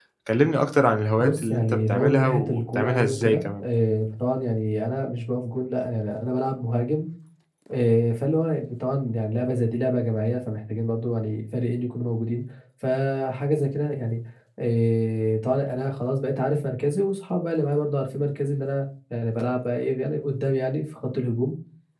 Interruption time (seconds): 1 s

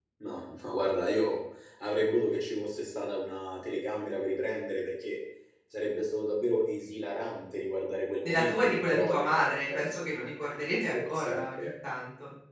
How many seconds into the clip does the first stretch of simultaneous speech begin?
8 s

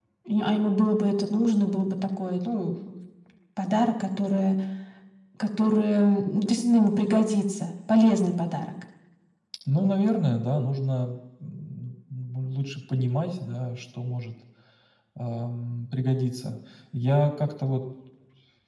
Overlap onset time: none

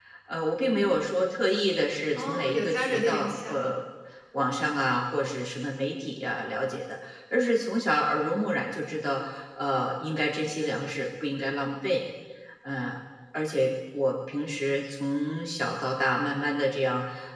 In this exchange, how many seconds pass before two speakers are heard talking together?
2 s

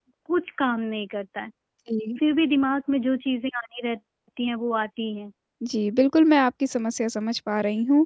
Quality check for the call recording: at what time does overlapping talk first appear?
none

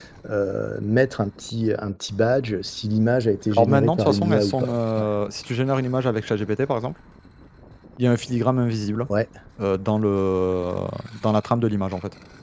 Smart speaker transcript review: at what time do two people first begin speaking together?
4 s

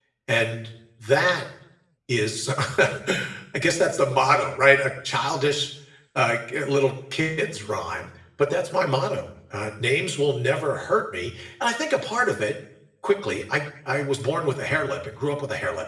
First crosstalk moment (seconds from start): none

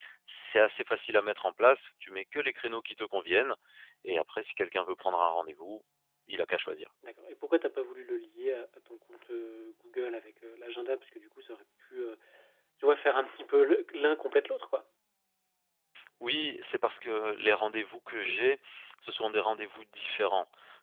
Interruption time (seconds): none

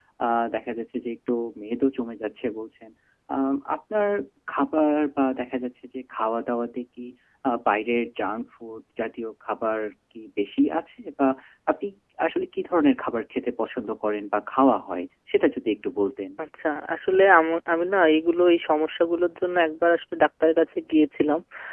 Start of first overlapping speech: none

